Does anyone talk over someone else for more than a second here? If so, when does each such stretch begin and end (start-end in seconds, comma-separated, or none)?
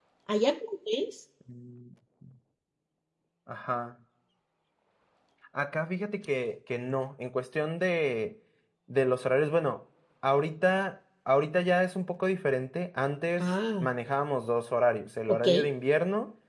none